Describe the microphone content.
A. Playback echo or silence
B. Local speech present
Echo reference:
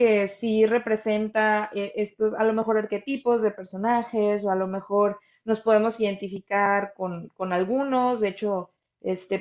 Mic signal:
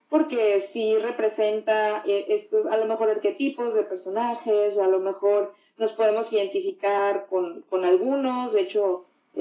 A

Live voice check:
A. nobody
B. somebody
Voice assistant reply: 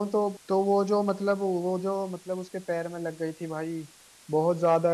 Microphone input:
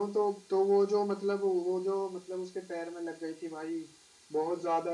A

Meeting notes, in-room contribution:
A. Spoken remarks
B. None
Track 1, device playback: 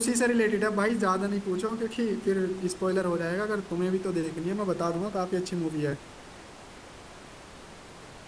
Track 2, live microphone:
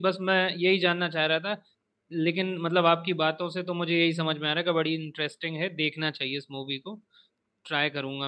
A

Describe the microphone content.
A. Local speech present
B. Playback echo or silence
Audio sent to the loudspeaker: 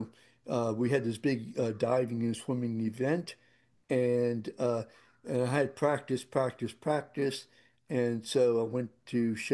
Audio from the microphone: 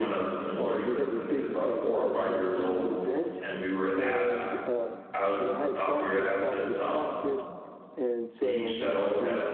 A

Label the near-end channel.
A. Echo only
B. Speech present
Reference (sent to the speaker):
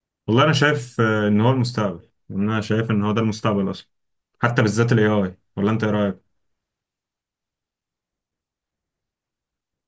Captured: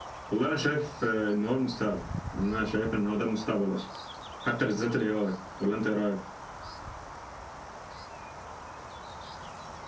A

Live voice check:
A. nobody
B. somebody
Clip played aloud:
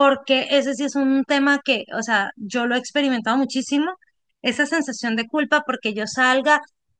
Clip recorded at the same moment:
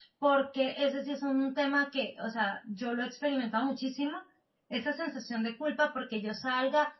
A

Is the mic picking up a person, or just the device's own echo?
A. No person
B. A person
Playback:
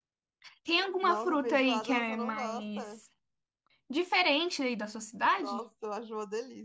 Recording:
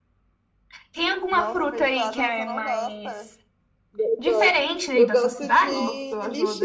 B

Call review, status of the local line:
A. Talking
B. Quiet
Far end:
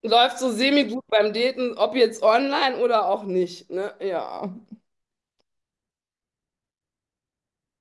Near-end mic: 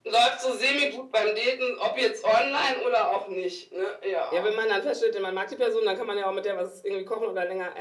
A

